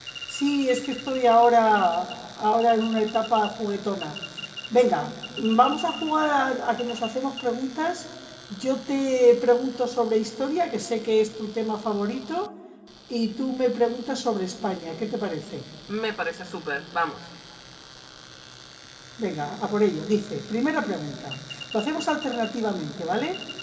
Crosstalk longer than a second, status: none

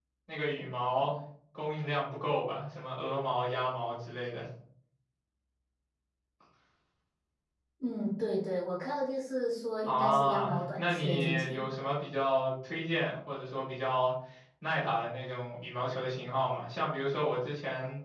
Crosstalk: present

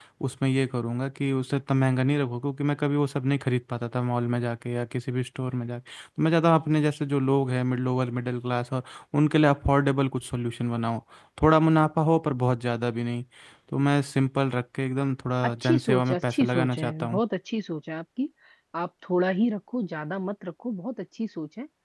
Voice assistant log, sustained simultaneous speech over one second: present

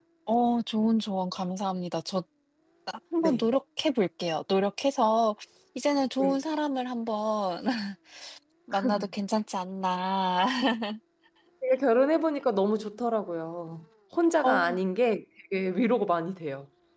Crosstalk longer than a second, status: none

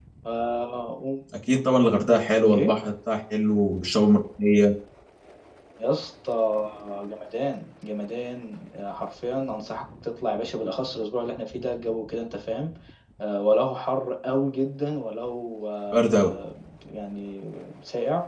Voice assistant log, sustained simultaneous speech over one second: none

